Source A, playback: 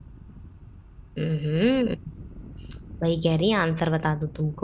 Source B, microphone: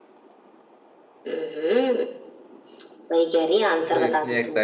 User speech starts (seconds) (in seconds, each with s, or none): 3.7 s